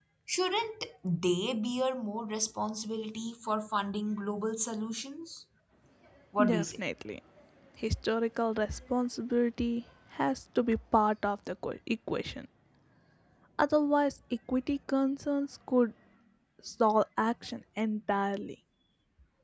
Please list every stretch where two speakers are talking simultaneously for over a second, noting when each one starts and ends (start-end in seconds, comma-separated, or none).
none